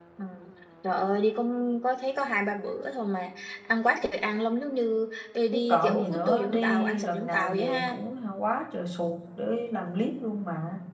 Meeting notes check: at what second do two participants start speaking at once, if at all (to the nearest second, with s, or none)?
6 s